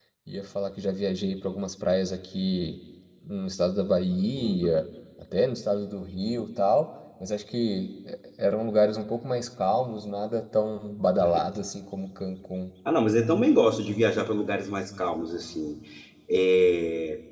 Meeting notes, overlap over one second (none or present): none